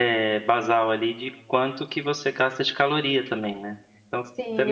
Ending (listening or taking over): taking over